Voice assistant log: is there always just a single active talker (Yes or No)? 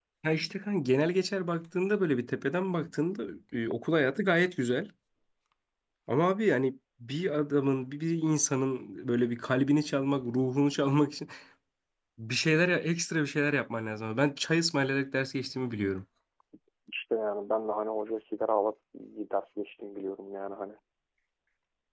Yes